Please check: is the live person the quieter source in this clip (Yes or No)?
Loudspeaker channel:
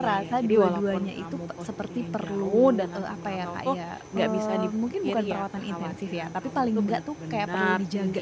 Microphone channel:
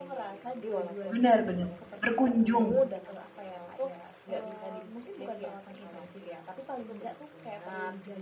No